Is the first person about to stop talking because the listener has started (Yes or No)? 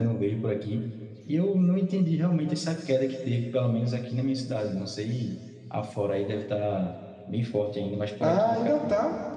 Yes